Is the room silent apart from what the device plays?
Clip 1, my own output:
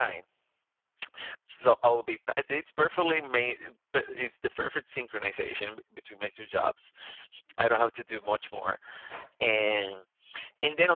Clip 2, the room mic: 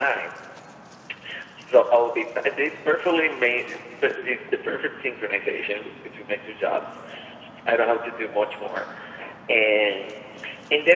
Yes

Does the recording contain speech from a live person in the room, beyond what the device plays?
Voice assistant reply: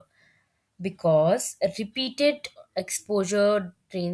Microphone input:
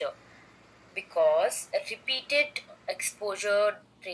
No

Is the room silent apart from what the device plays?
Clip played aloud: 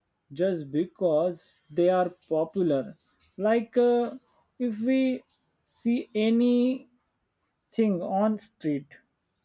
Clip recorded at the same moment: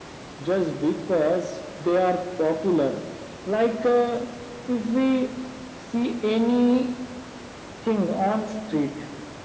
Yes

